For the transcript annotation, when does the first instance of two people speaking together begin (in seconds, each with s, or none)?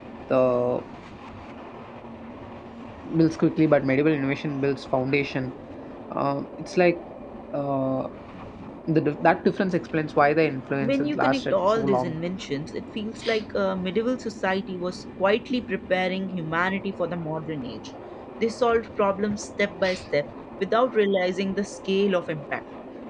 10.8 s